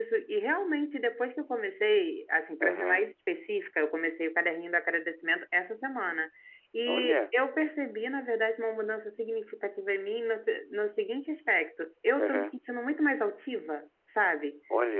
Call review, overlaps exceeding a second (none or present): none